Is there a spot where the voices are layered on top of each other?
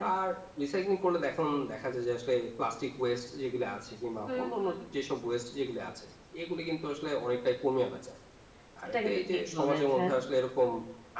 Yes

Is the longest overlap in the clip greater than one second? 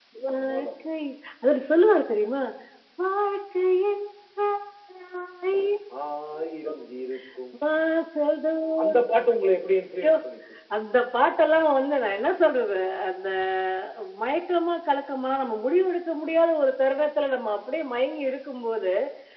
No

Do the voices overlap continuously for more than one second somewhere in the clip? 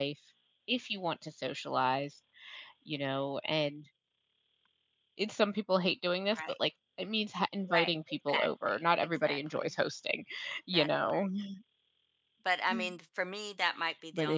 Yes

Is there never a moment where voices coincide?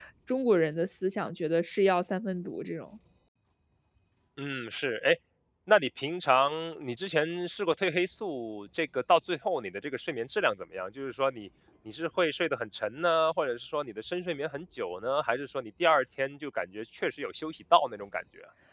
Yes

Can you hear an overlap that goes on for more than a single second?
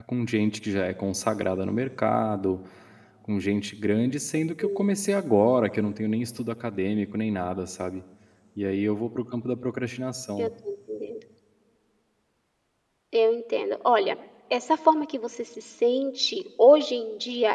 No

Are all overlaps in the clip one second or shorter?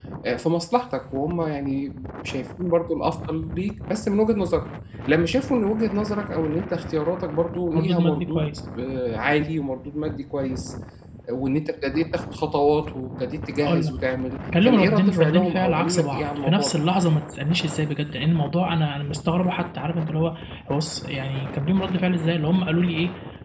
No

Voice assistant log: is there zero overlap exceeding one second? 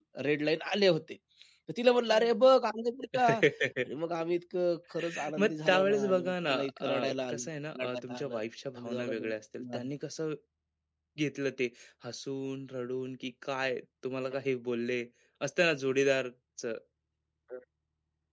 No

